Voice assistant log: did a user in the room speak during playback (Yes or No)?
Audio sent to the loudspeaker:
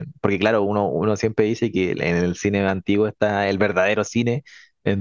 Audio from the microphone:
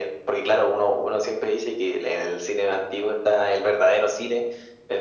No